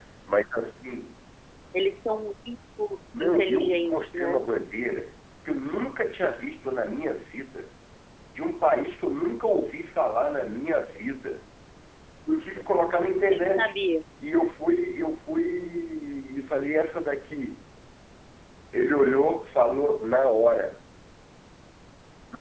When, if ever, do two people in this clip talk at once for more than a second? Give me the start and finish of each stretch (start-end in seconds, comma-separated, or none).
3.2-4.4